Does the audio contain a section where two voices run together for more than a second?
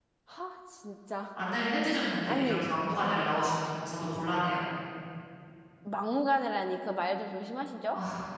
No

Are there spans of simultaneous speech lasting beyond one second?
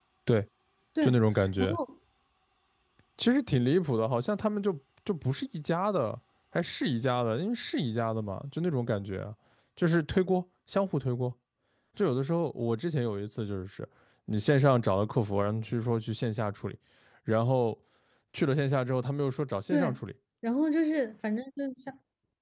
No

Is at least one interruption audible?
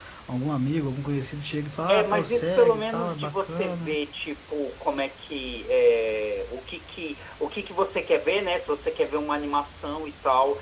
Yes, from 1.9 s

